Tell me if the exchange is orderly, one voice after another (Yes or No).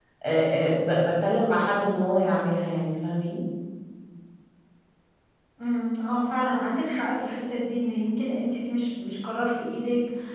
Yes